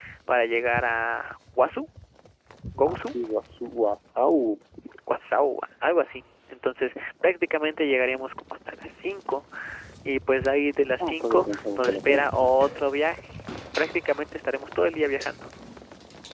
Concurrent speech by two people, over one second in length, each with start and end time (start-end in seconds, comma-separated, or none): 11.0-12.5